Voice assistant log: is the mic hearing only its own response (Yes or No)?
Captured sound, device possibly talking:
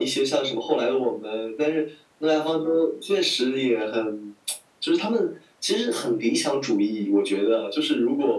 Yes